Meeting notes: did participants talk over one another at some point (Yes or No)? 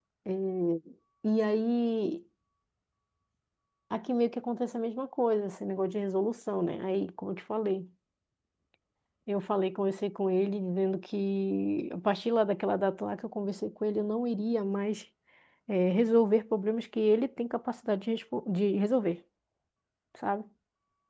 No